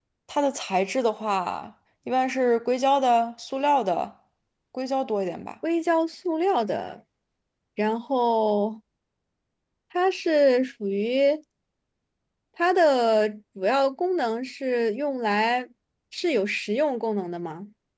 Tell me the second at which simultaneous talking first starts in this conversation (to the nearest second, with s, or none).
none